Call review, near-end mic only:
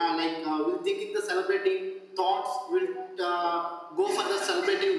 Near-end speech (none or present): none